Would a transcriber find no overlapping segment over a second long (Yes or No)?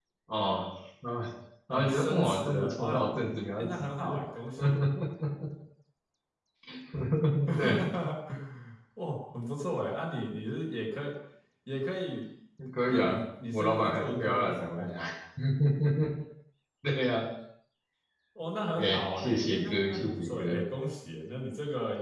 No